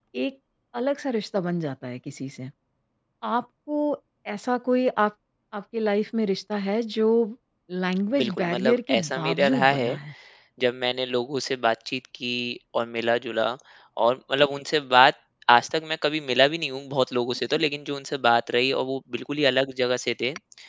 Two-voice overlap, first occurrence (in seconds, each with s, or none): 8.2 s